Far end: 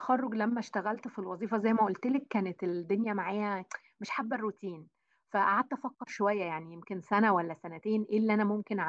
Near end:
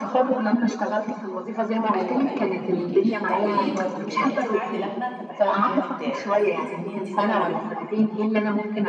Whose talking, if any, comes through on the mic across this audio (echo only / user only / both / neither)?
both